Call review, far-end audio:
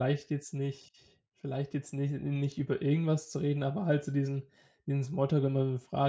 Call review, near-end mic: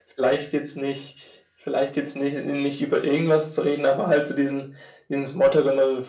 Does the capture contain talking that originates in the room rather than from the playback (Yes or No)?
No